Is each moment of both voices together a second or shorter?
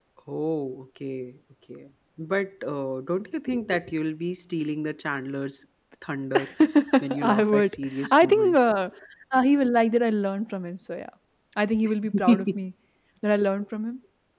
No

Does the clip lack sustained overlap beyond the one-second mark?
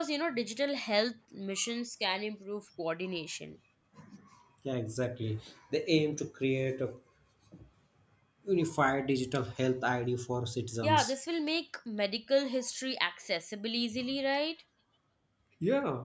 Yes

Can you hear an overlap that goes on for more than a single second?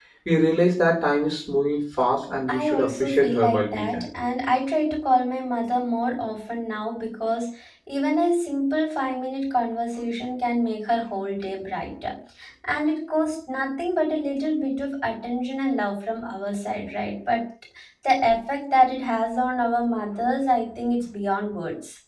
Yes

